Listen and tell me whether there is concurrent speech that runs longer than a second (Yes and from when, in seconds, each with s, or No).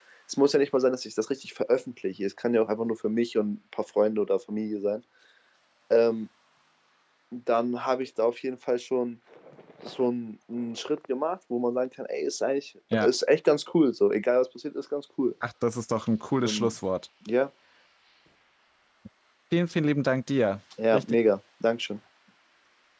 No